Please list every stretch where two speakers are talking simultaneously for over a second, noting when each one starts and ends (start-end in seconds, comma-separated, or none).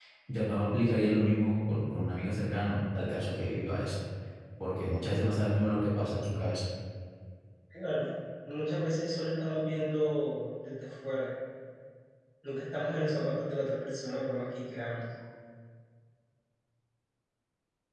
none